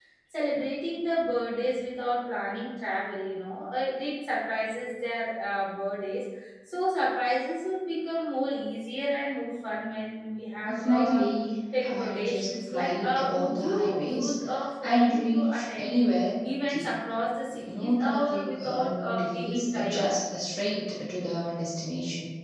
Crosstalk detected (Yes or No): Yes